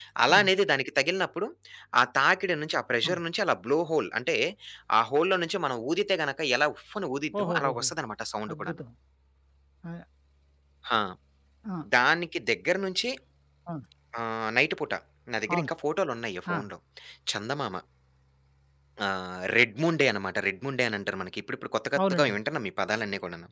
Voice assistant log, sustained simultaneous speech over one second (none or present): none